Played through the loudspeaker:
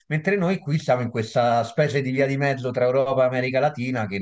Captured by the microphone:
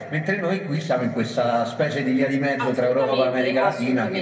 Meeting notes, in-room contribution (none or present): present